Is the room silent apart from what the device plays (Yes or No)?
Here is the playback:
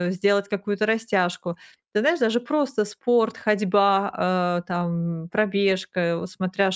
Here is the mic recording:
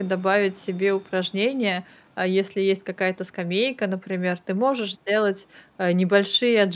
No